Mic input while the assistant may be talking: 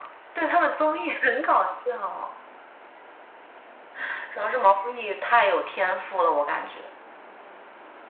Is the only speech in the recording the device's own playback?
Yes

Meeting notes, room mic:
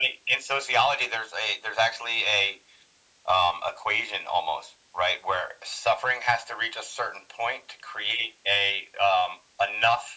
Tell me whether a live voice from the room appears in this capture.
No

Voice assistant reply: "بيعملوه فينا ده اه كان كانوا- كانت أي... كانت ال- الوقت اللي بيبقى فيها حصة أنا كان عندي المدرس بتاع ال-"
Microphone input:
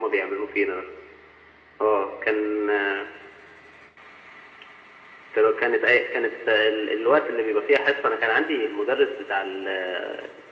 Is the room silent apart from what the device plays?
Yes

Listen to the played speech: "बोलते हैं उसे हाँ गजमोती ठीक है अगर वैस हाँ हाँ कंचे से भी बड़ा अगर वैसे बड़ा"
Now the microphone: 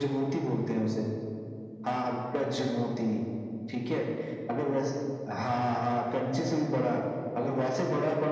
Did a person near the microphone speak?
No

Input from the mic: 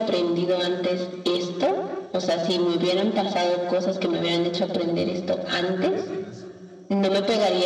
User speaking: Yes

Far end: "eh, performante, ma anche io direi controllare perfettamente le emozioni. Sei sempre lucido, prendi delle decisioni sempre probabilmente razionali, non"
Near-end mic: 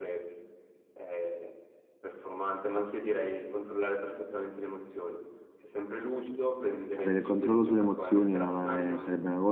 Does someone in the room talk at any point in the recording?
Yes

